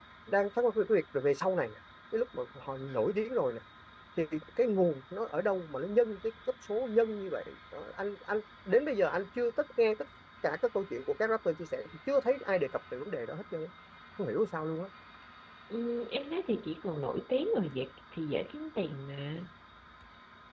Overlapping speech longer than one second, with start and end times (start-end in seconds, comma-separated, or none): none